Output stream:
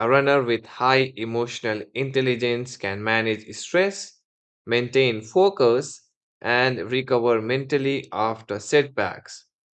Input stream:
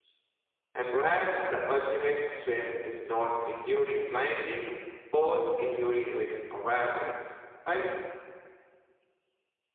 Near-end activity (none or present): present